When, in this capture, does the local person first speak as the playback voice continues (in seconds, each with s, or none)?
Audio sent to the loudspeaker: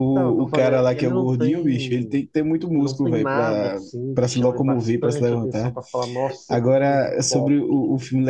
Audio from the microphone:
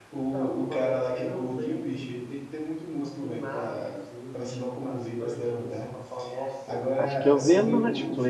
7.0 s